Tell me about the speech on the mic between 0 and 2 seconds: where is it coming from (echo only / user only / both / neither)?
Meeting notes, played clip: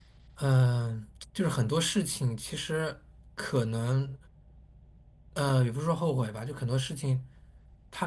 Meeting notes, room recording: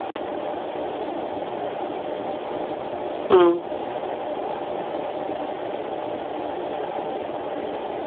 neither